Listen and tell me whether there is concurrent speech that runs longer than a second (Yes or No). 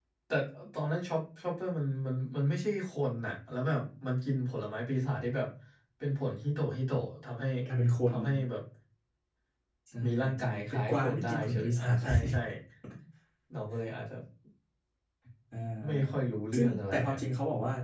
Yes